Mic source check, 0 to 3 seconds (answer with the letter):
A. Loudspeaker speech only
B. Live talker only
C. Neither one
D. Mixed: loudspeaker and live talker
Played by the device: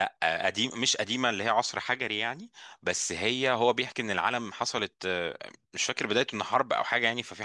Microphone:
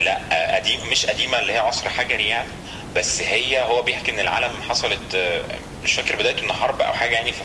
A